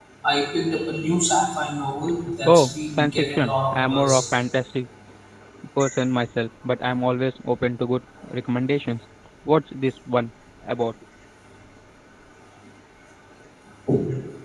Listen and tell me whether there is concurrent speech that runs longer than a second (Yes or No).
Yes